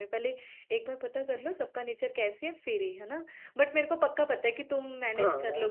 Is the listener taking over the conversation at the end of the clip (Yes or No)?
No